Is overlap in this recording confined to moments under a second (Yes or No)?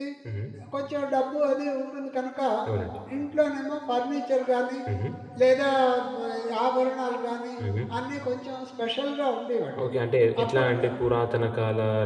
Yes